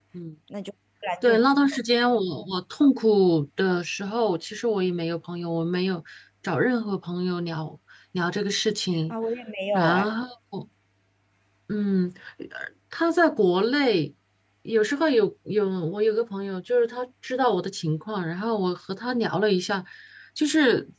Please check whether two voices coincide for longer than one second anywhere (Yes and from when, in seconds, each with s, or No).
No